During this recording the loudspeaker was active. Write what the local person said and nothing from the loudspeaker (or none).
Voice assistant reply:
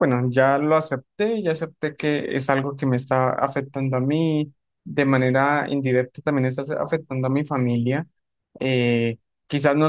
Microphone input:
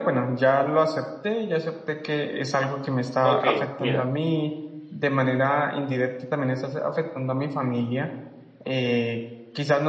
Ok, mira,